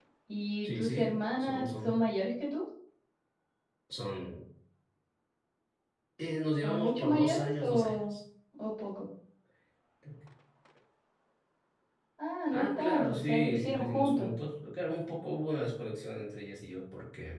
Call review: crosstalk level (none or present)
present